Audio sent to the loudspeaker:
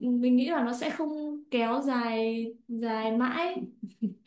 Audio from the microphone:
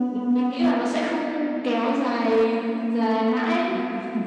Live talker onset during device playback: none

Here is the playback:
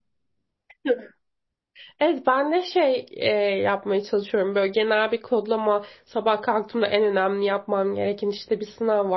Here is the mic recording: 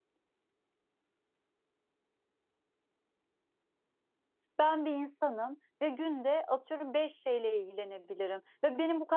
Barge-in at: 4.6 s

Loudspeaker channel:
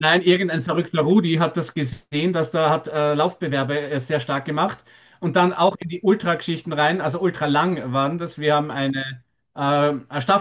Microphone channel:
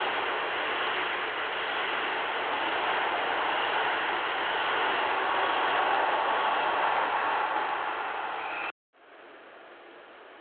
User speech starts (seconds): none

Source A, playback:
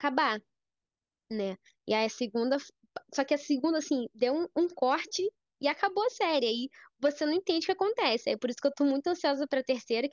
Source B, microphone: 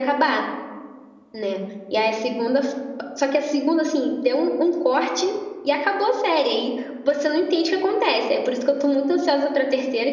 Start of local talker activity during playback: none

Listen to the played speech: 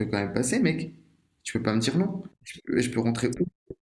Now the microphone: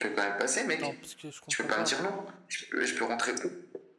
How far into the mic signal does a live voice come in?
0.8 s

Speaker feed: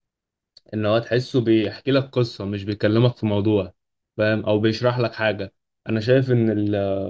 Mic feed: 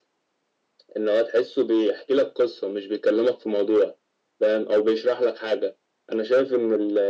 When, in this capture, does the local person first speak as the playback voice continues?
none

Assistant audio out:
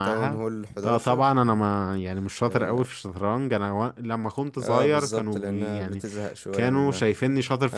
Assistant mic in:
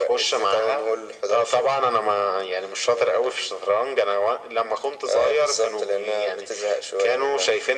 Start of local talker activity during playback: none

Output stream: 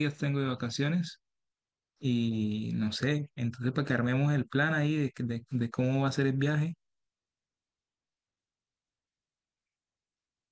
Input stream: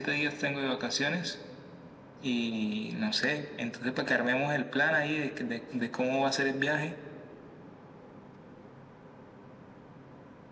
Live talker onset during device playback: none

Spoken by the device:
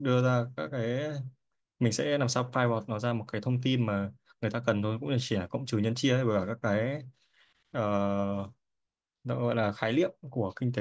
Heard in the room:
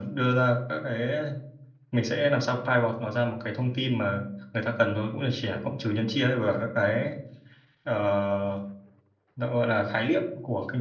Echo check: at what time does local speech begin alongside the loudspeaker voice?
none

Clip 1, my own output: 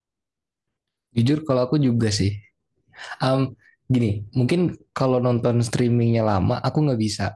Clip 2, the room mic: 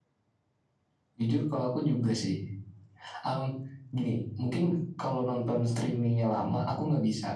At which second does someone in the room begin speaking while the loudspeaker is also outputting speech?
none

